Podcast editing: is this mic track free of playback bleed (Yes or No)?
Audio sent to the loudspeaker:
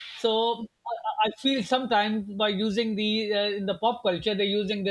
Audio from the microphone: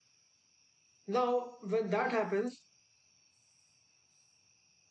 Yes